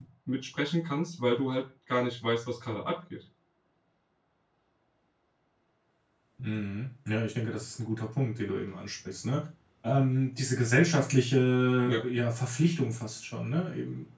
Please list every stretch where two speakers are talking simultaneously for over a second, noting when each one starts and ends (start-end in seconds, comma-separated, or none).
none